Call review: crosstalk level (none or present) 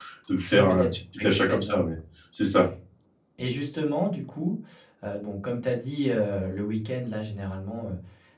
present